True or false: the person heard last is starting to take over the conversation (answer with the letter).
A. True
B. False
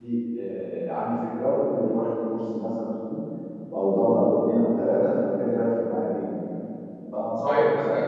A